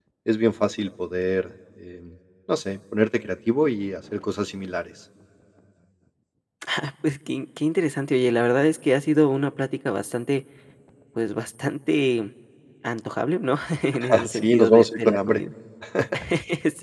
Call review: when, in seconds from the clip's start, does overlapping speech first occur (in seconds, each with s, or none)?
14.1 s